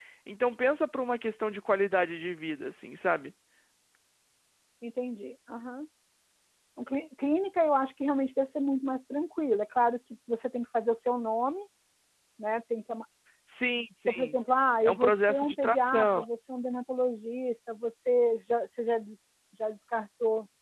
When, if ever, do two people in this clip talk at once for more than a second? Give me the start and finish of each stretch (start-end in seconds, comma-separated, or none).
14.8-16.2